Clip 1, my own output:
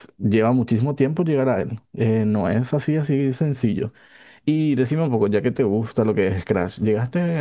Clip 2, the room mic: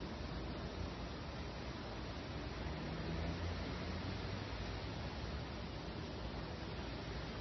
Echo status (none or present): none